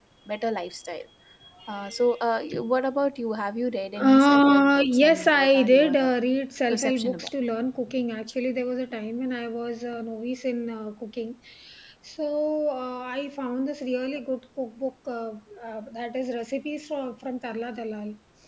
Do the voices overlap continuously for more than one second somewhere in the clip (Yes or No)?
Yes